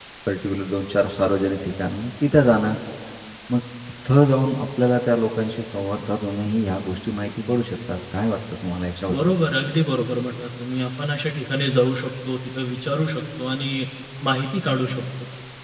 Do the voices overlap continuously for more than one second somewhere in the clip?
No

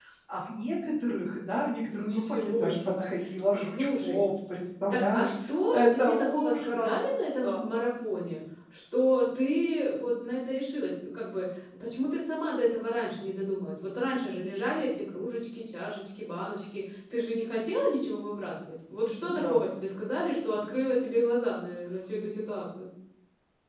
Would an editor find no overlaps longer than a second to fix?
No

